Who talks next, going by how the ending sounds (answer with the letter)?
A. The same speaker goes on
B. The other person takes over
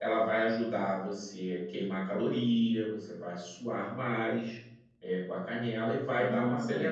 A